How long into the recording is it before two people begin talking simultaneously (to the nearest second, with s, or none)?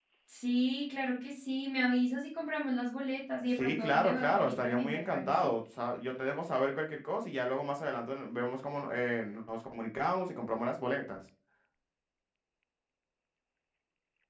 4 s